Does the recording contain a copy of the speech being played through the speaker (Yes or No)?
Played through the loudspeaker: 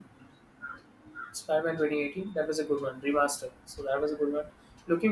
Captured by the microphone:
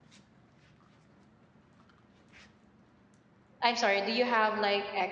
No